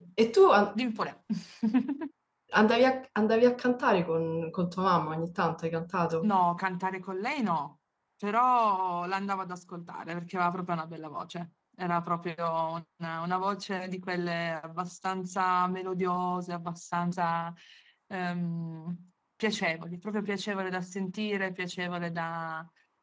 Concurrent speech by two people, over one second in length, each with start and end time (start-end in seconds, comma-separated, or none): none